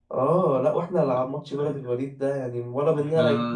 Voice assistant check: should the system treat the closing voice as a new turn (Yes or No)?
No